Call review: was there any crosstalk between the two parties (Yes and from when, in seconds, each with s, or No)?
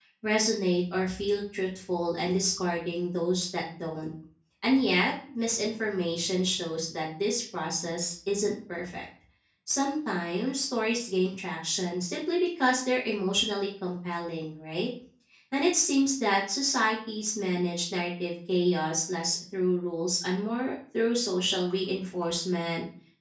No